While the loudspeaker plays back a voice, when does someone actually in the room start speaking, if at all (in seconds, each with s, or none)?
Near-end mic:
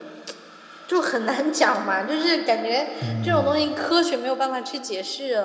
3.0 s